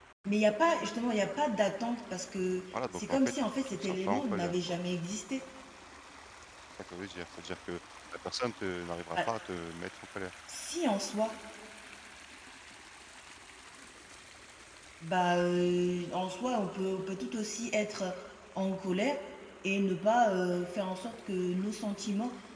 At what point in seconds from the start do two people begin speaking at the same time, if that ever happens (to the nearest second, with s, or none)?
3 s